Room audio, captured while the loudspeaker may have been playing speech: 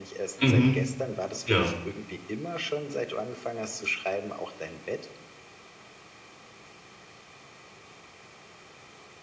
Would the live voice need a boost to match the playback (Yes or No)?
No